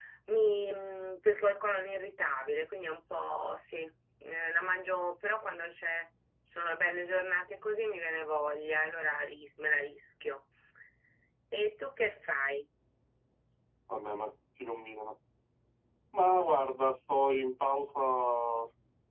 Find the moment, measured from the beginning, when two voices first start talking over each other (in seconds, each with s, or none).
none